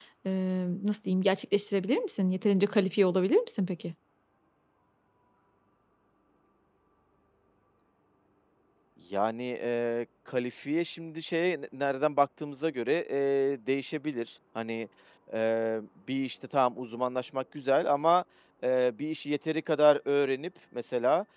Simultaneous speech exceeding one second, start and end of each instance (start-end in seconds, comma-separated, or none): none